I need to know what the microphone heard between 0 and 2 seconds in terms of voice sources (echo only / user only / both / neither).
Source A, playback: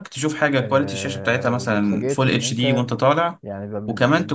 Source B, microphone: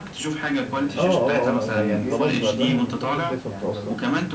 both